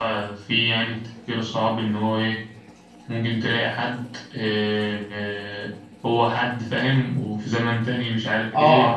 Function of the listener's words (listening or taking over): taking over